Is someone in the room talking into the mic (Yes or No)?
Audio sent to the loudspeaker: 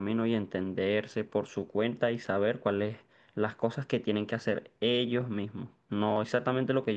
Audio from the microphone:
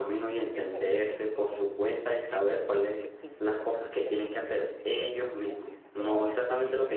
Yes